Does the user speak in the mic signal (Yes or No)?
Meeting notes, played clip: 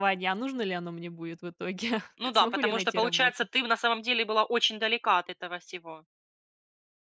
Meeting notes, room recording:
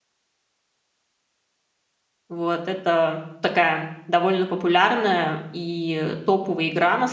Yes